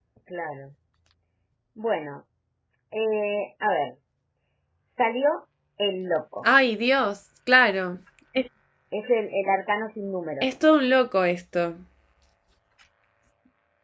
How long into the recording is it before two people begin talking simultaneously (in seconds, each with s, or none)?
none